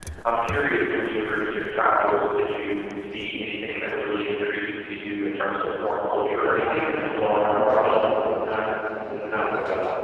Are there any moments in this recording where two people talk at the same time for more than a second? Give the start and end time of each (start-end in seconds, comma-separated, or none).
6.4-7.9